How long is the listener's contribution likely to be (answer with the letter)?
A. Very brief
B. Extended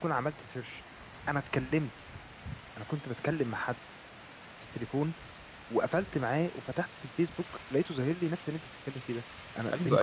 B